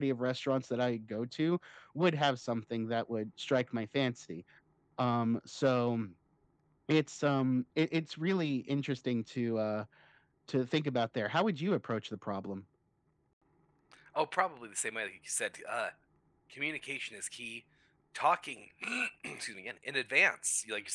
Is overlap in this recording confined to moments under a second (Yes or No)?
Yes